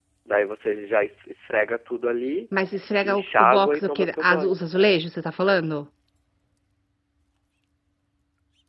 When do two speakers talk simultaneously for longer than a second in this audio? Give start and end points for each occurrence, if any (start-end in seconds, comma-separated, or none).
3.0-4.6